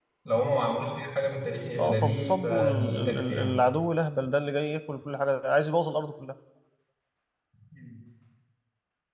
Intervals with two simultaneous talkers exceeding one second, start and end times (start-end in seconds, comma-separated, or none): 1.8-3.6